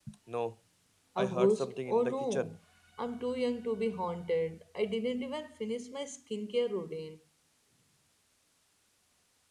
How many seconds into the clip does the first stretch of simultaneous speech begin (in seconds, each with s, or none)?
1.2 s